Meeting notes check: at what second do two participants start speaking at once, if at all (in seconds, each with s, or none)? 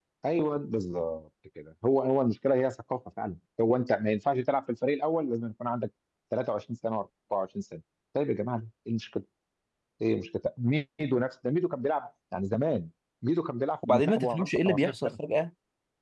13.8 s